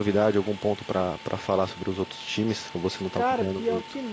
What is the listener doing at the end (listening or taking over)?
taking over